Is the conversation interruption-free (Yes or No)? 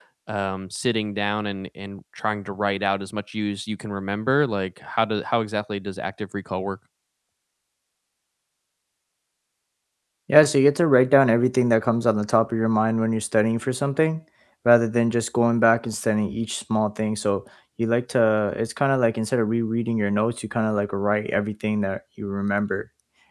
Yes